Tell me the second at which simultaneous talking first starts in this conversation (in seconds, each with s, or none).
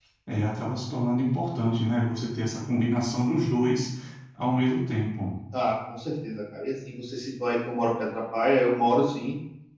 none